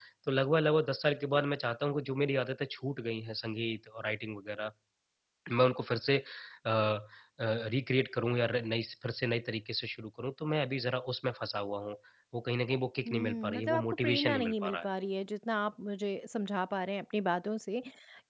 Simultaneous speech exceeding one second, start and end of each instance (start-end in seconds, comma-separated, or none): 13.1-14.9